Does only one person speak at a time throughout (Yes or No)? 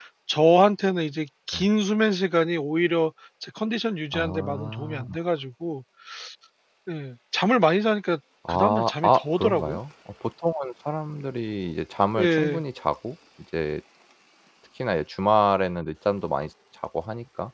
No